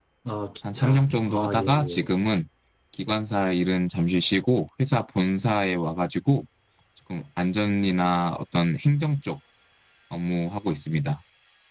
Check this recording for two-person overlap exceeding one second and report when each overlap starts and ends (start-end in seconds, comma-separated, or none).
0.7-2.1